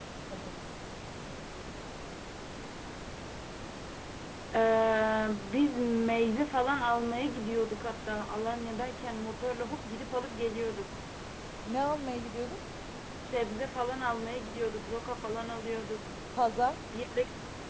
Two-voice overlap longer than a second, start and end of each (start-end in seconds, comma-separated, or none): none